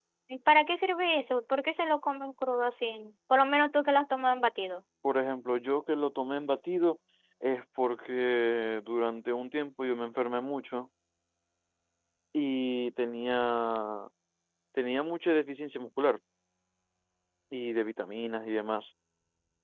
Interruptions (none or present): none